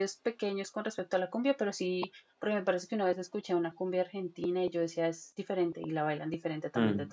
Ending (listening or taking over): taking over